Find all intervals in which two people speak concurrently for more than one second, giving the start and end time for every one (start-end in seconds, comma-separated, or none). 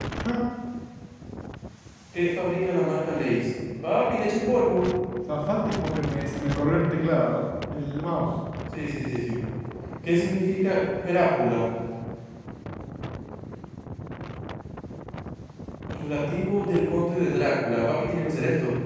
none